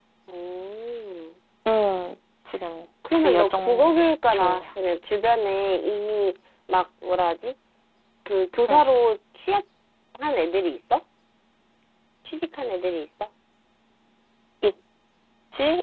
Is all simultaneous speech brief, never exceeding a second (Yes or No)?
No